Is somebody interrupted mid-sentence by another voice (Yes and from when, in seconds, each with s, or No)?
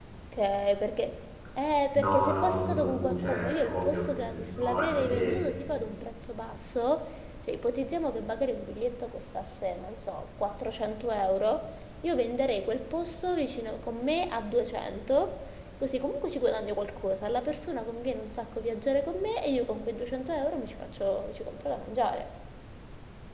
Yes, from 1.9 s